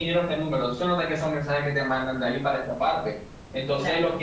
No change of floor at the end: Yes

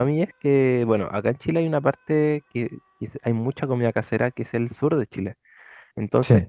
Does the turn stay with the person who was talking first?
Yes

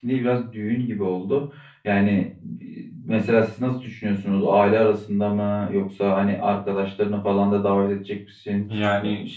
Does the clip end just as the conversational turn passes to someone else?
No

